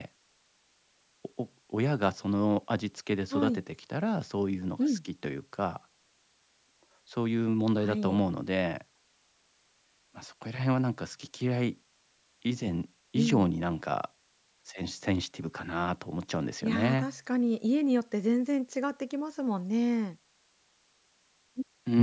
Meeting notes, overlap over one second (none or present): none